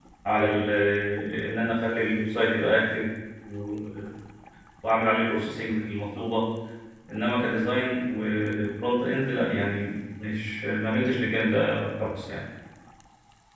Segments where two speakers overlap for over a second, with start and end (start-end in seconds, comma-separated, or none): none